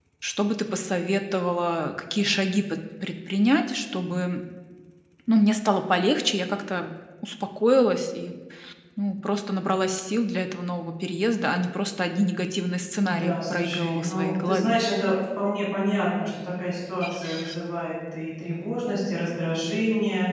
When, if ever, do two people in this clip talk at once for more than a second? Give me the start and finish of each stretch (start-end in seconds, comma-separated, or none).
13.0-14.8